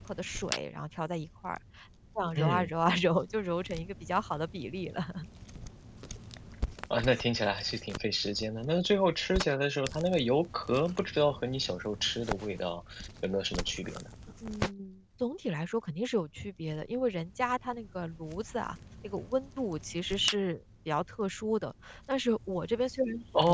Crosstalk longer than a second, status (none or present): none